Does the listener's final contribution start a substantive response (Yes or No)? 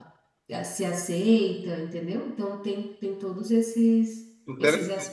Yes